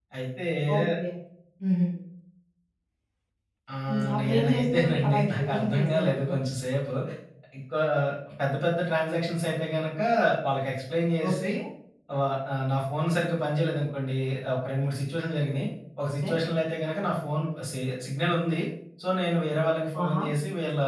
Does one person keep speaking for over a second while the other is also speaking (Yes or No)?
Yes